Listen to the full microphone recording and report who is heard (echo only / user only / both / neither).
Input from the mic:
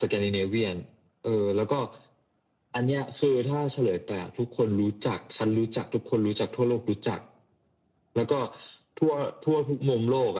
echo only